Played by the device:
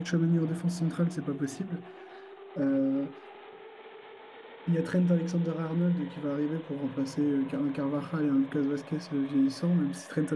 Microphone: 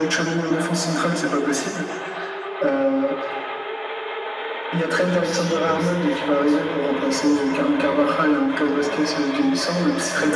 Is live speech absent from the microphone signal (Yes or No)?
No